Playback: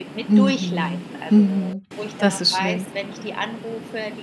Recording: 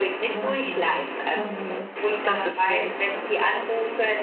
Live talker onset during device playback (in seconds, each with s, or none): none